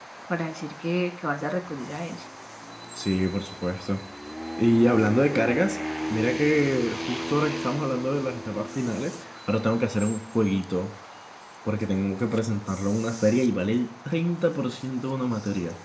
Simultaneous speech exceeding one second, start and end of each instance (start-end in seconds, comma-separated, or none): none